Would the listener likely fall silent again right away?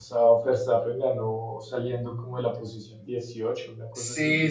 No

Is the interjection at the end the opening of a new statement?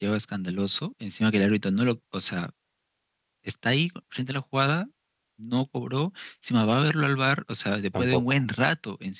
No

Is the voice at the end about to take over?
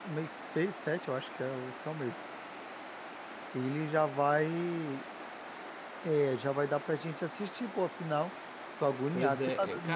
Yes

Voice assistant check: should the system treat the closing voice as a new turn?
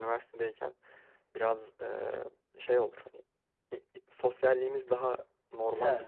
No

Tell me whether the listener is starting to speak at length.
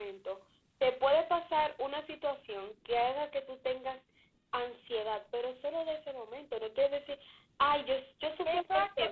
Yes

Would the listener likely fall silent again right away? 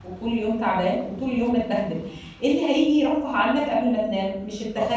Yes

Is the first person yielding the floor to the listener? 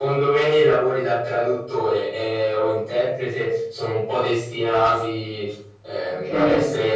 No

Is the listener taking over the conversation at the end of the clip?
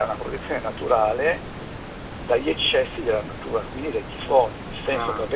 No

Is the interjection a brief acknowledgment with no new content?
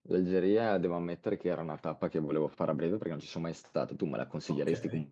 No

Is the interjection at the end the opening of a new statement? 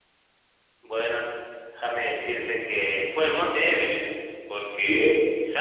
No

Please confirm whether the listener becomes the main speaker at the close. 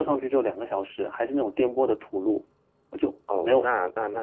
Yes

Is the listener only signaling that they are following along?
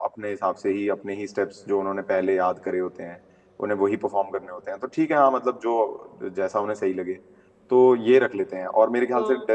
Yes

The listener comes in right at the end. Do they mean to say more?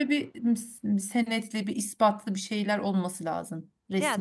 Yes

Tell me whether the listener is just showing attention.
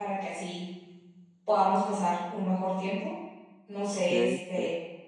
Yes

